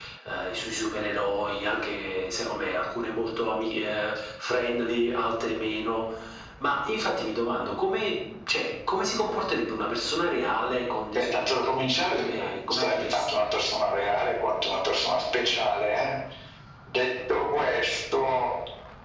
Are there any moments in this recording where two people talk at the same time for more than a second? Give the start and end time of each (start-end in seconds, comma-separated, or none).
11.2-13.4